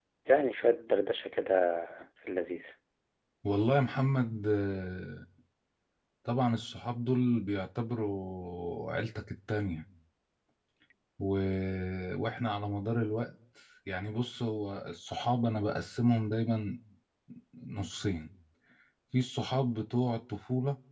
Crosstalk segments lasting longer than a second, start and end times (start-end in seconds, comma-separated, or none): none